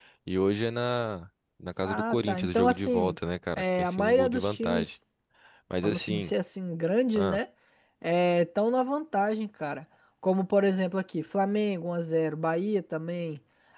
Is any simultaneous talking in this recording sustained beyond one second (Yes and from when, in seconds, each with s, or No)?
Yes, from 1.9 s